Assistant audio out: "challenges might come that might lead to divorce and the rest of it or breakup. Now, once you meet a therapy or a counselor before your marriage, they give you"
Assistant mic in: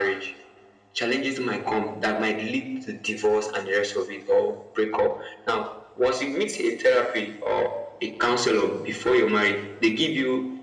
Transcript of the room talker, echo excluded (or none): none